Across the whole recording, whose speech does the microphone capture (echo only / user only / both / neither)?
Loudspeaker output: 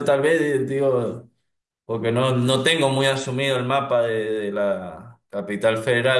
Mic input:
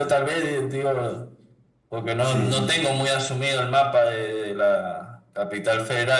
both